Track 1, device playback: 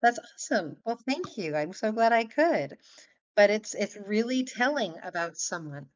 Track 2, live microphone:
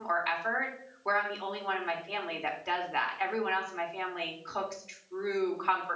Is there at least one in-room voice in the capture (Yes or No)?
Yes